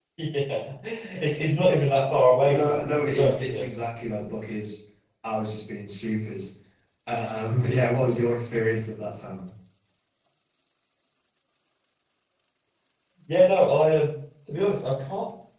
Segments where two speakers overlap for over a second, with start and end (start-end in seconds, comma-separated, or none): 2.5-3.7